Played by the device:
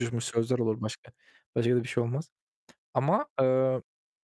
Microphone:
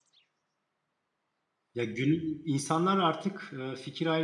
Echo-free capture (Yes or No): Yes